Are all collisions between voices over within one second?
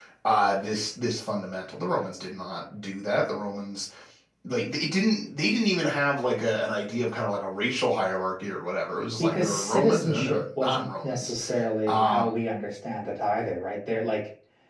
No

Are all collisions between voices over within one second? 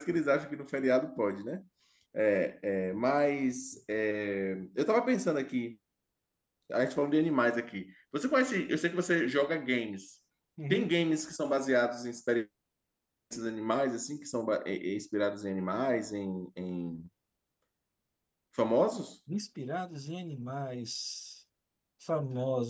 Yes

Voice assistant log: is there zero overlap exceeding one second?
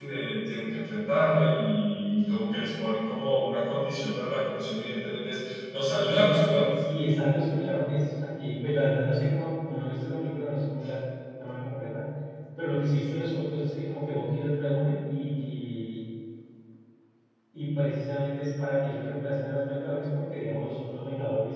Yes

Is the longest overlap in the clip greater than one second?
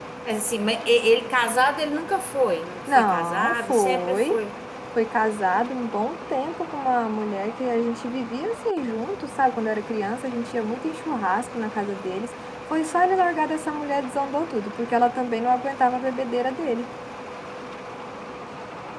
Yes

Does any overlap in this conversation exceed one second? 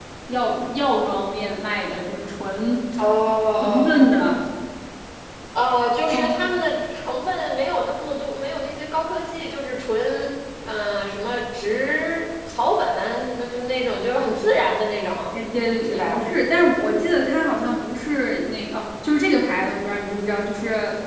No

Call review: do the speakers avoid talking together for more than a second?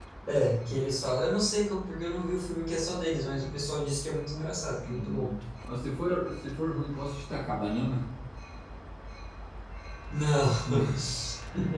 Yes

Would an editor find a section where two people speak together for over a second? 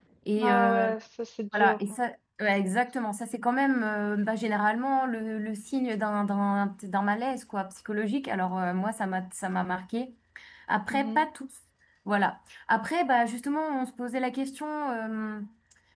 No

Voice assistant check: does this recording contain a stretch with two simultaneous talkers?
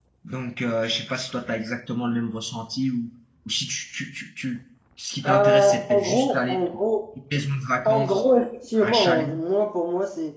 Yes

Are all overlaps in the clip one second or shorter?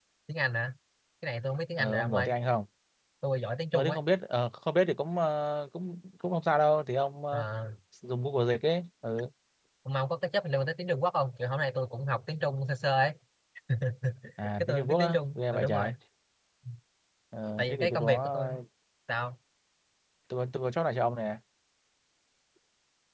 No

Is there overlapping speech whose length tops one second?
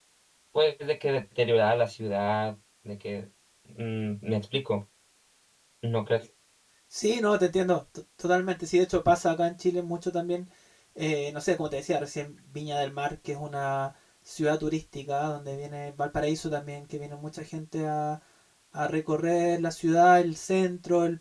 No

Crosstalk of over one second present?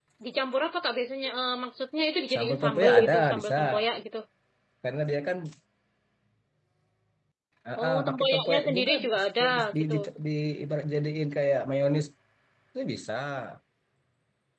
Yes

